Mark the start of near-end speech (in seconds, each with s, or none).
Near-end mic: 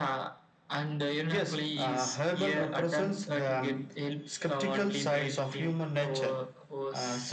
none